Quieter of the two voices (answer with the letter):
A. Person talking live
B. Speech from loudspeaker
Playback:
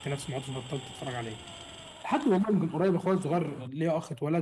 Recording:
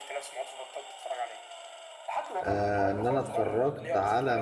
B